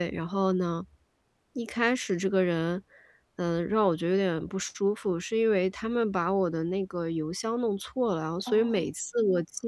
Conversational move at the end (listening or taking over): listening